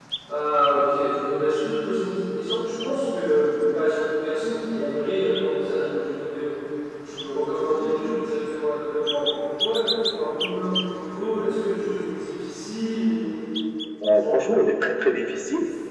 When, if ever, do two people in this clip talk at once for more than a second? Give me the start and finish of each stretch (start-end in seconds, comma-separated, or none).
none